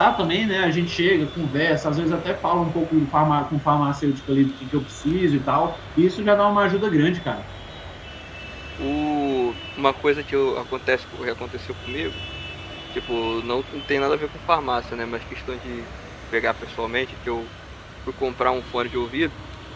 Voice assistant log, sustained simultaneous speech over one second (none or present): none